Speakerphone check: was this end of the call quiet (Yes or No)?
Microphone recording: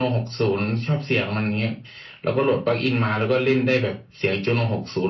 Yes